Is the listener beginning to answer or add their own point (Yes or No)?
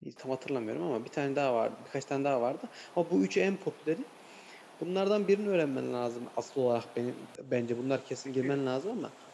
No